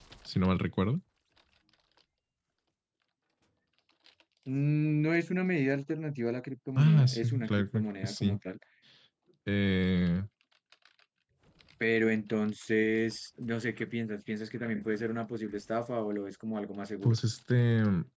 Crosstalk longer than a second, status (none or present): present